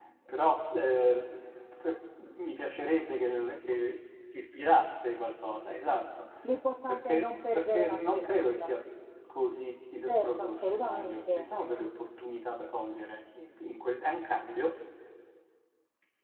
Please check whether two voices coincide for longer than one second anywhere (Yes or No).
Yes